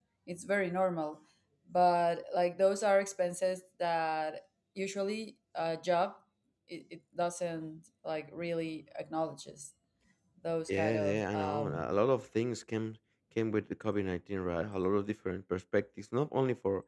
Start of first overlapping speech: 10.7 s

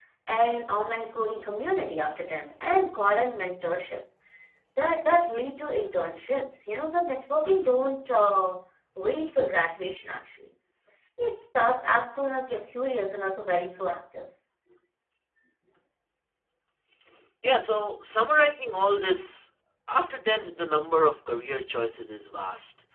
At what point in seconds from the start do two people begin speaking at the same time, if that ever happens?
none

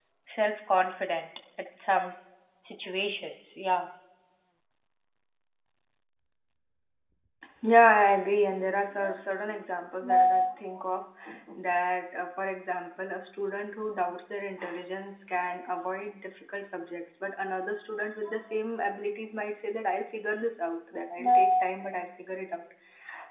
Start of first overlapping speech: none

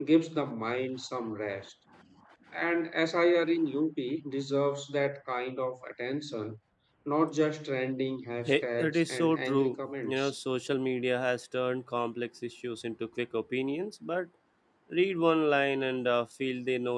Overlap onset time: 8.5 s

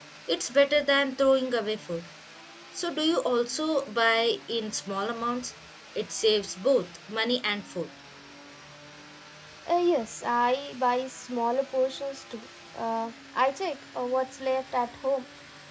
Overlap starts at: none

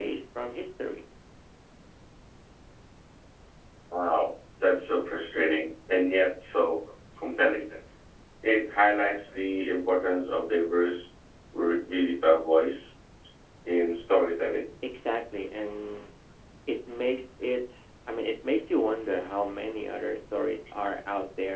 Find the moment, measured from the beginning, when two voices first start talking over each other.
none

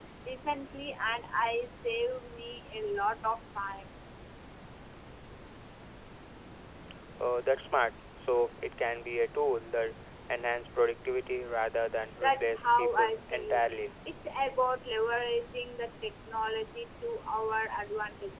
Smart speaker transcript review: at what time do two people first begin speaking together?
12.2 s

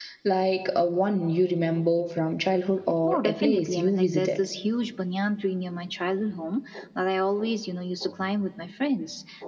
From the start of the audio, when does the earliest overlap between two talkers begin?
3.0 s

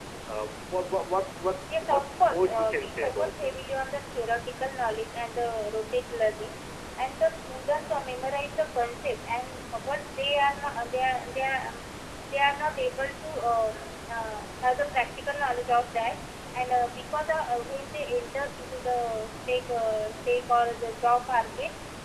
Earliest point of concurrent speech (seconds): 1.8 s

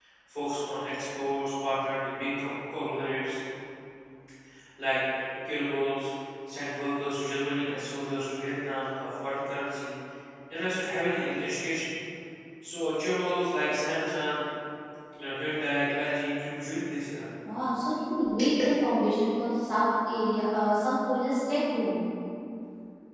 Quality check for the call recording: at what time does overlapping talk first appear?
none

